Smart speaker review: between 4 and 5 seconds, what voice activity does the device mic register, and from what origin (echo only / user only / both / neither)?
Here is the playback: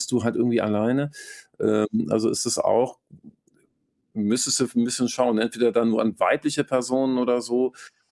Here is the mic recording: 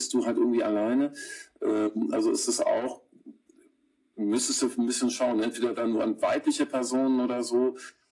echo only